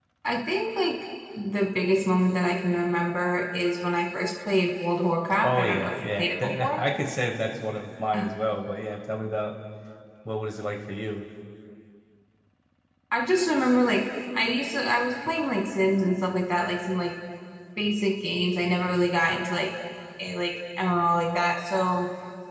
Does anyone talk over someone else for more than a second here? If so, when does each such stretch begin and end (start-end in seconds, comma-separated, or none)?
5.4-6.8